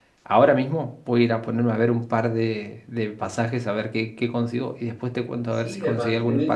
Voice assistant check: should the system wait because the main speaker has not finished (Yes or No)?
No